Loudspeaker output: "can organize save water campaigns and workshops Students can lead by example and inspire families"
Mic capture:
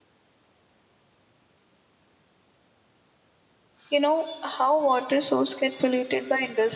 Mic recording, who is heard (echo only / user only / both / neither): user only